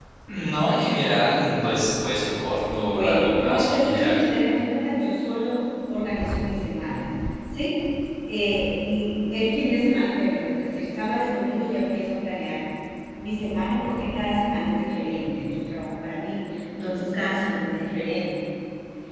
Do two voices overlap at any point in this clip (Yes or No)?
Yes